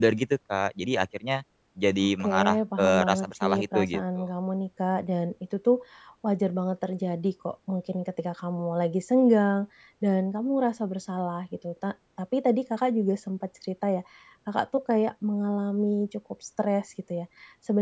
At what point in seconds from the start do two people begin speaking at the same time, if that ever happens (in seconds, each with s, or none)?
2.0 s